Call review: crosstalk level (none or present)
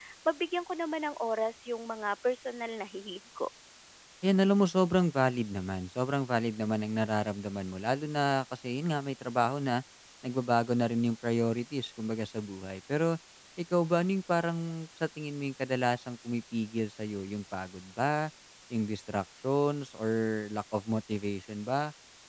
none